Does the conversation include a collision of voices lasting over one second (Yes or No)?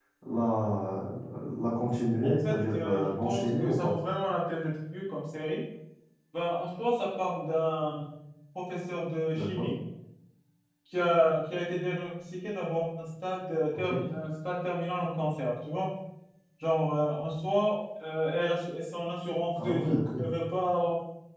Yes